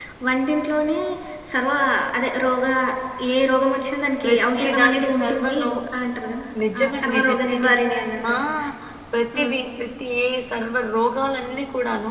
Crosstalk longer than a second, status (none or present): present